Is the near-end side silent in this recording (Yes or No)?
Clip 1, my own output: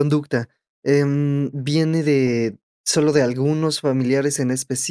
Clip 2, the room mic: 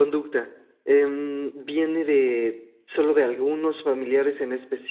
Yes